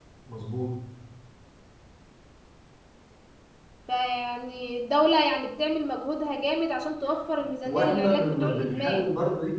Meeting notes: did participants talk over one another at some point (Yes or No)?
Yes